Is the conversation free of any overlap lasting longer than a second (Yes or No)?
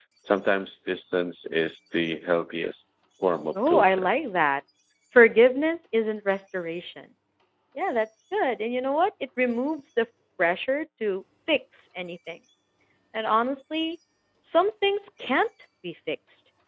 Yes